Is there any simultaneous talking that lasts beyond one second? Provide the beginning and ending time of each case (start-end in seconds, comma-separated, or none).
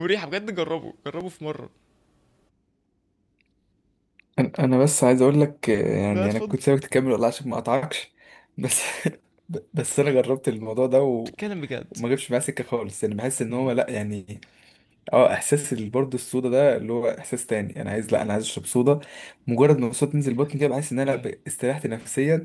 none